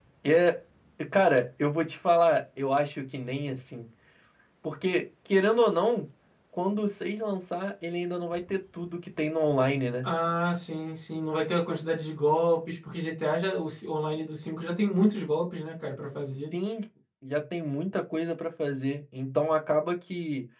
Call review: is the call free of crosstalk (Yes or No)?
Yes